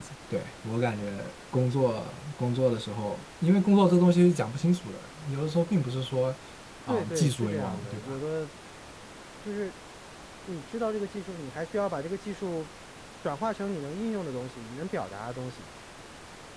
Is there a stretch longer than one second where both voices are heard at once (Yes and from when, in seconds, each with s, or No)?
Yes, from 6.9 s